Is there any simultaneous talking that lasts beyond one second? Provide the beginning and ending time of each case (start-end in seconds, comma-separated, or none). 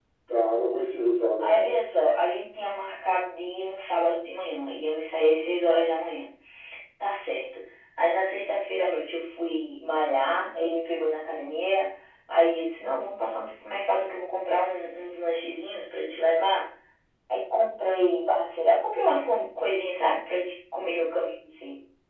none